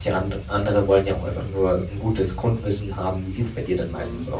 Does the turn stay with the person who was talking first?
No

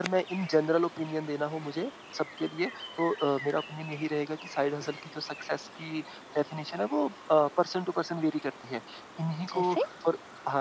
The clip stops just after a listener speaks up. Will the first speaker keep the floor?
Yes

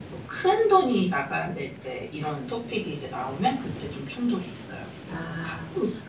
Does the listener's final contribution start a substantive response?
Yes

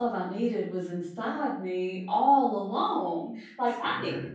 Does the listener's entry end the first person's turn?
No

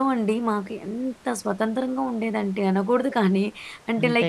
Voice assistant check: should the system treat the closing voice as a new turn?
No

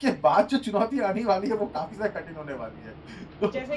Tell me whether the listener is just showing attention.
Yes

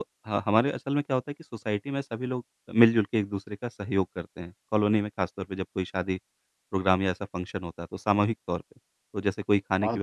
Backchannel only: Yes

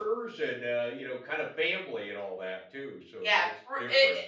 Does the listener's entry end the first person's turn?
Yes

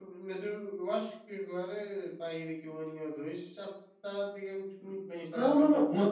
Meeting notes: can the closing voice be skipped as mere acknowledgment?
No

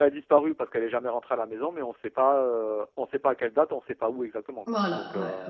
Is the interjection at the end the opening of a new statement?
Yes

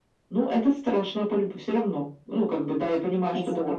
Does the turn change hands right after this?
No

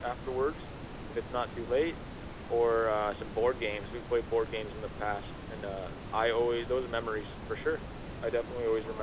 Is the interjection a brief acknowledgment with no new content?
No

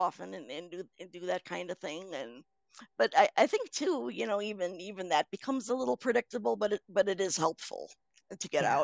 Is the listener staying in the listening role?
No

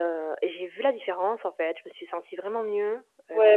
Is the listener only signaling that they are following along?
No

